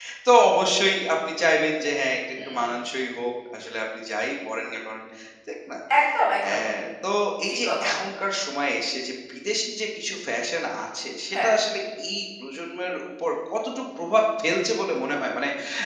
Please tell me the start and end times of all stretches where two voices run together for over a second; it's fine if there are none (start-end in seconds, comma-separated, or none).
none